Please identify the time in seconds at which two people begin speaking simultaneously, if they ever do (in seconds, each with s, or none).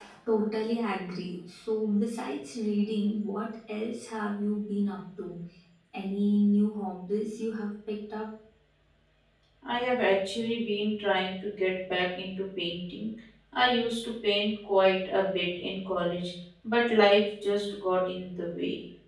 none